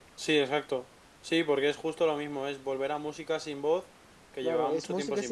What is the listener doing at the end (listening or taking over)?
taking over